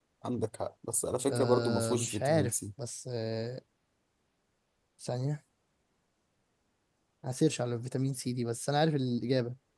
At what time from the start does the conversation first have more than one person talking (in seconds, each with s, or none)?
1.3 s